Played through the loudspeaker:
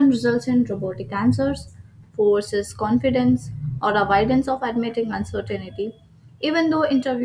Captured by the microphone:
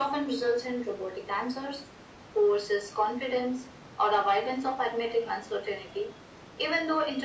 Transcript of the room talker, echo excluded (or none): none